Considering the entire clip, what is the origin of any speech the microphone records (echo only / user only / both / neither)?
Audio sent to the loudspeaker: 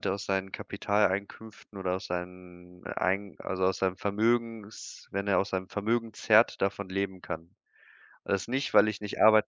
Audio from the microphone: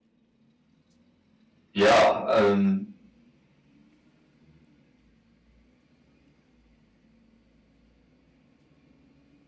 user only